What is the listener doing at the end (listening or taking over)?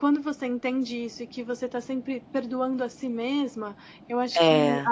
listening